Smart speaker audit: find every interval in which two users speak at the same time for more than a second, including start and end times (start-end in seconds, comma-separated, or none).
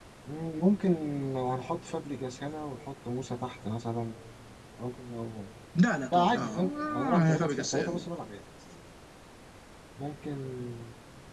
6.1-8.0